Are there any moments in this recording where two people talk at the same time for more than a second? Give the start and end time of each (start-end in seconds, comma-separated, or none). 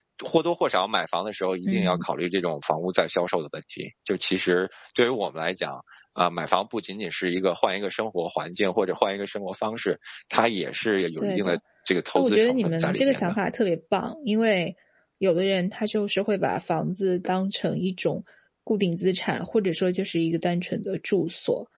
12.2-13.4